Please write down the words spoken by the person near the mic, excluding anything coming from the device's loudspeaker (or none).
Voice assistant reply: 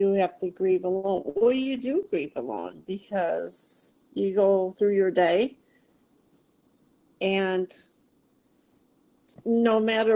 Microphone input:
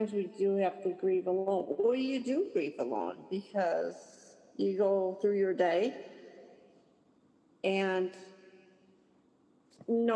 none